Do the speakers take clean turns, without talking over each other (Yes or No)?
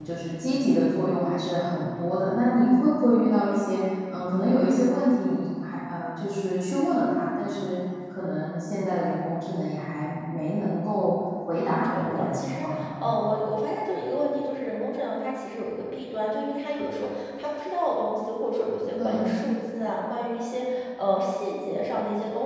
No